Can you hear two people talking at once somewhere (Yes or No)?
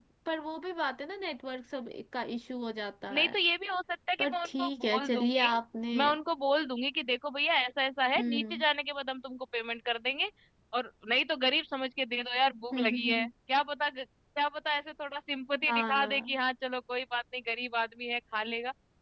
Yes